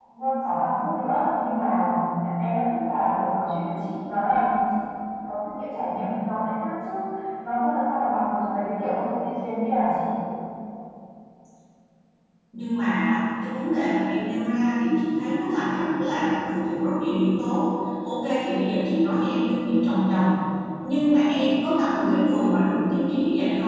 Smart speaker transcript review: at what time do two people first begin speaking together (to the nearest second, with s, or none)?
none